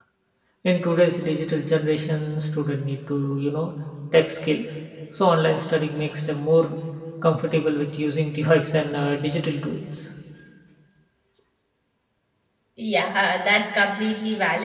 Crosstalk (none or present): none